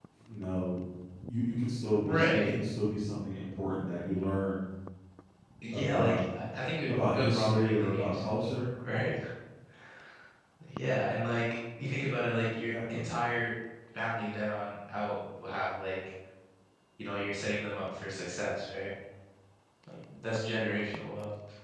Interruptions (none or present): present